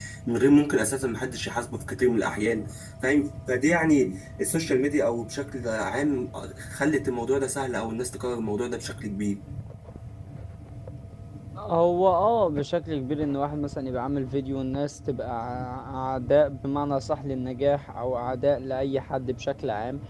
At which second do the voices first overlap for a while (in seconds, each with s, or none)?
none